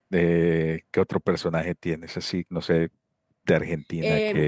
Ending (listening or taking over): taking over